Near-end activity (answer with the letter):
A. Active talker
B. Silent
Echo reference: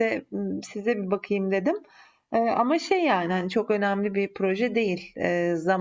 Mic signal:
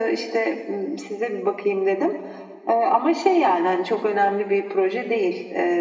B